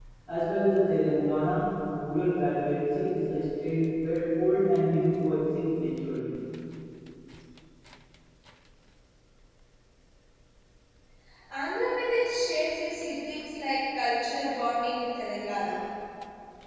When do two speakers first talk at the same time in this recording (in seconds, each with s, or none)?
none